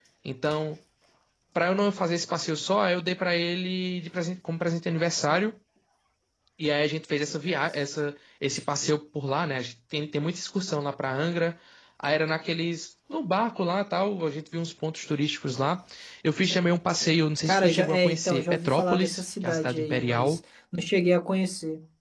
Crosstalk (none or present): present